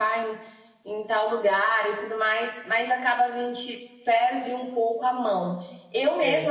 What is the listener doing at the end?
listening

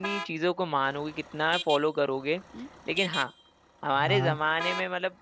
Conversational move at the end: listening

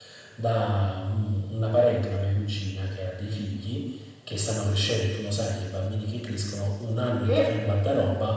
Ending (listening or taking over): listening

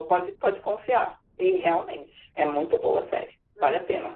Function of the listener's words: taking over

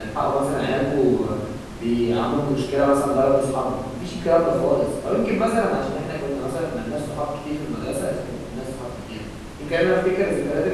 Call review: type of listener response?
listening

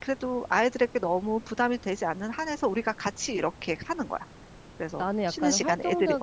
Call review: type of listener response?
taking over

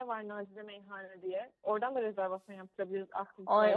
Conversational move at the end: taking over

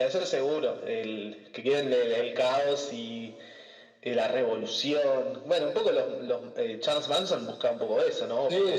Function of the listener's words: taking over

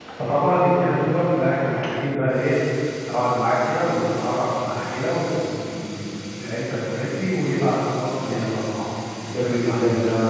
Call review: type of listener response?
taking over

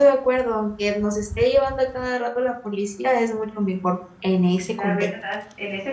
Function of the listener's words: taking over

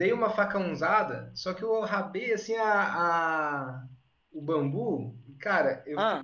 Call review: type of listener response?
listening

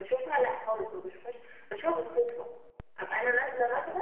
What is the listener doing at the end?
listening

